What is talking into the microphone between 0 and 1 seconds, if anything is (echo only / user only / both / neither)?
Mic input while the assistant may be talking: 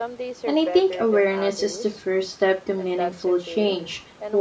both